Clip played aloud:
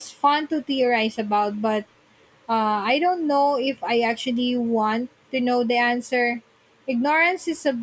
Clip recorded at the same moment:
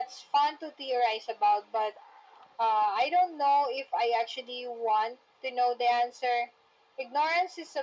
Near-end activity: none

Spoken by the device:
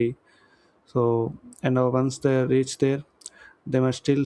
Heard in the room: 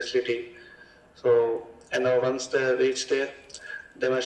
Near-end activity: none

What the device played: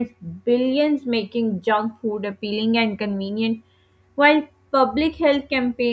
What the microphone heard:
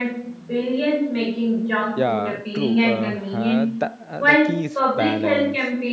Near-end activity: present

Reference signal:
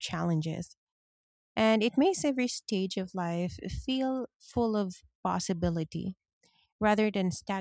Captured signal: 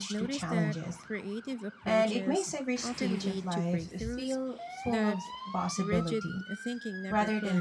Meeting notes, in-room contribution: present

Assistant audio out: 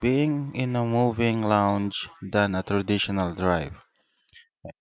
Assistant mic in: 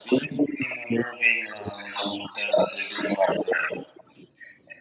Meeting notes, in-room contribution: none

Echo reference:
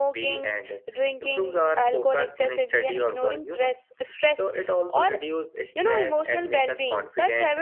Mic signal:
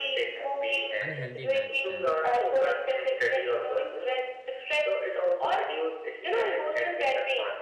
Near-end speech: present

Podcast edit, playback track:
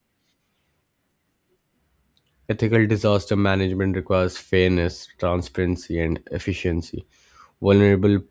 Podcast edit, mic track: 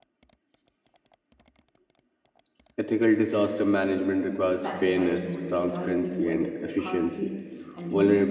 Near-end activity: present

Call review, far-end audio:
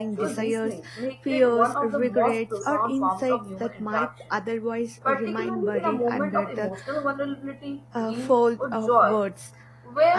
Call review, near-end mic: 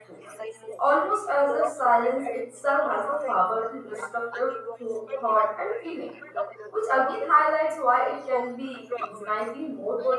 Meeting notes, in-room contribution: present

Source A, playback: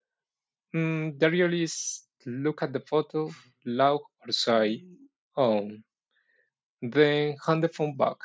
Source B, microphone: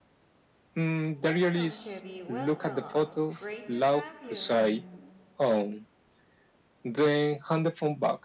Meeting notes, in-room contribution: present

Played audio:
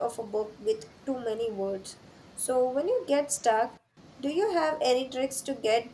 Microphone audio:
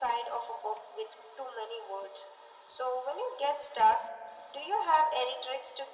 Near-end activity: none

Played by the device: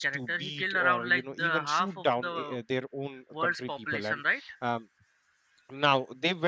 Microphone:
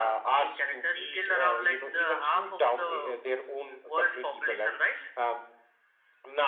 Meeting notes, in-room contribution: none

